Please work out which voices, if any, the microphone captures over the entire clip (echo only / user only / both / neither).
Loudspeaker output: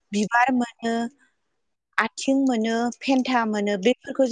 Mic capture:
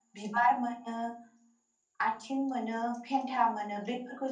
echo only